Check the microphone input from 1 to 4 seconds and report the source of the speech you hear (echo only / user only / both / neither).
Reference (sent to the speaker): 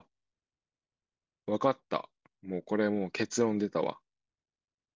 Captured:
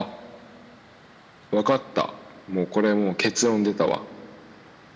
echo only